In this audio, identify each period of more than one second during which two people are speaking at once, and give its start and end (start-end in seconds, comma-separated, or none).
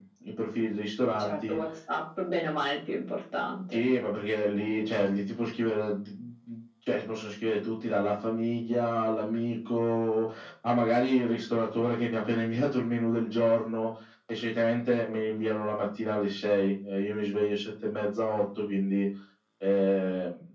none